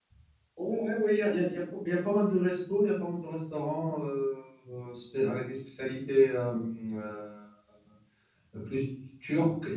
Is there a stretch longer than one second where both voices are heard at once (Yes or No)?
No